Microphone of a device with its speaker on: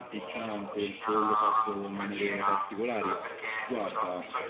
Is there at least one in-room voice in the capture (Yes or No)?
Yes